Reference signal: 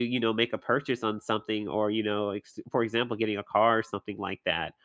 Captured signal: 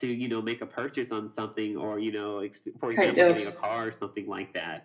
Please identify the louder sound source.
user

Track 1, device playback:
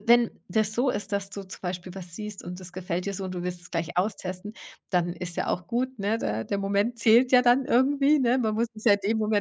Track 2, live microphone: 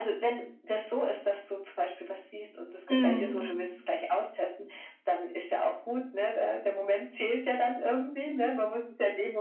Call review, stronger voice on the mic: user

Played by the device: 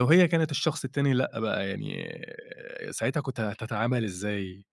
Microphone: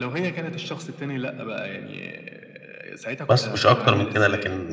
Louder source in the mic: user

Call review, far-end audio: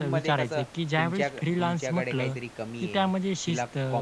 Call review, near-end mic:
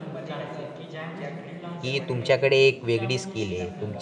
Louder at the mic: user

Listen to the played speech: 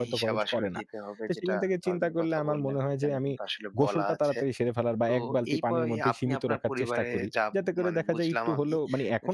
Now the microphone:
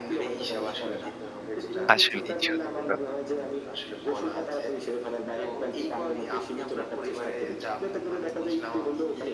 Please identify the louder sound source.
user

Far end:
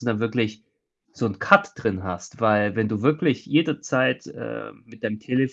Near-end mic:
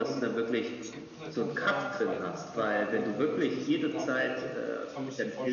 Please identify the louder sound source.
echo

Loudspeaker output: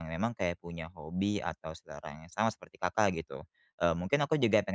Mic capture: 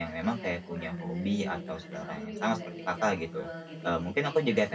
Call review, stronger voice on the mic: echo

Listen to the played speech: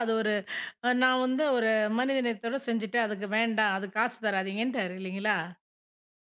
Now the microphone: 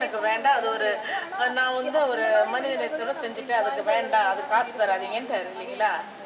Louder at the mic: echo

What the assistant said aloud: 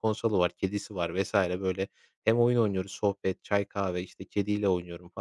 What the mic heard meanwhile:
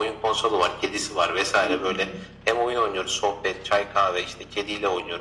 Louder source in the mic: echo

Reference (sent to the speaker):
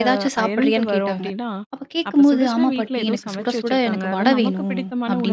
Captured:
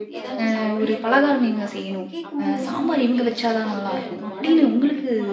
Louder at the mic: user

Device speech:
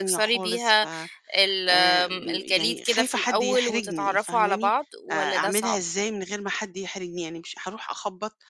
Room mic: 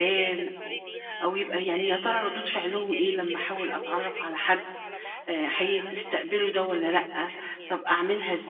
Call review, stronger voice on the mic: user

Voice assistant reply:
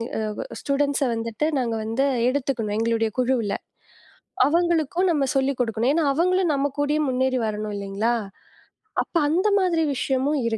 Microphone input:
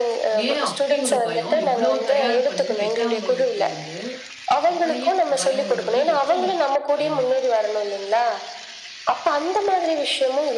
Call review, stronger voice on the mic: echo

